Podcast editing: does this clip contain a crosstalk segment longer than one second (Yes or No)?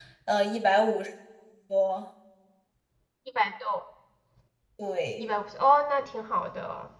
No